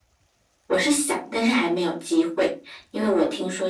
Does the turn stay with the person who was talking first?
Yes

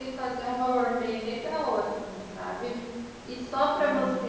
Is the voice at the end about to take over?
No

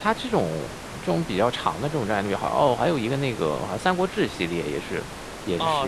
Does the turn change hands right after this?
Yes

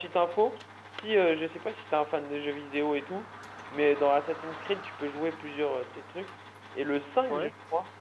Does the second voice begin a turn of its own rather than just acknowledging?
No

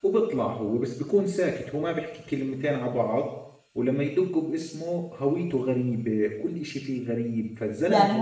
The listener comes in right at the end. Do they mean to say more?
Yes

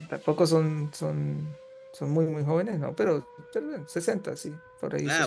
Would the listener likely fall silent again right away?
No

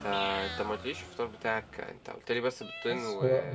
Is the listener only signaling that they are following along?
No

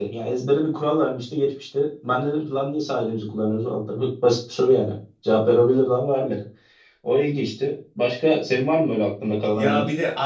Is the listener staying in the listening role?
No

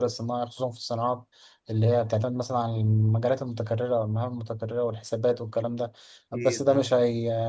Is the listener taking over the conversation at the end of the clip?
No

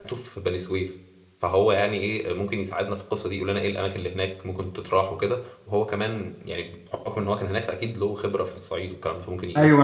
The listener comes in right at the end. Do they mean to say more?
Yes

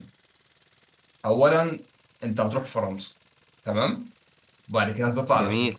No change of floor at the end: Yes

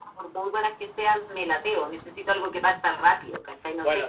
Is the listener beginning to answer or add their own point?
Yes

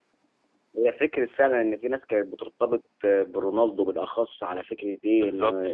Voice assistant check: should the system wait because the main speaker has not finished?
Yes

